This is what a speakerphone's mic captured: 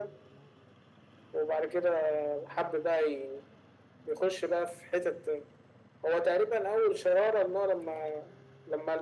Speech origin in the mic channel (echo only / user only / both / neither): echo only